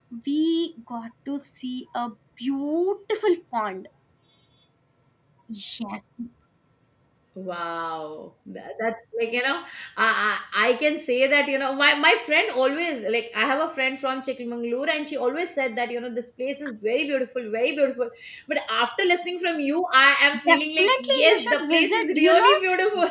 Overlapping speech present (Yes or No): Yes